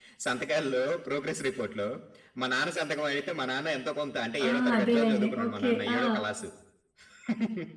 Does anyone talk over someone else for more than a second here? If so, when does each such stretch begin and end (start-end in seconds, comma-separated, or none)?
4.5-6.0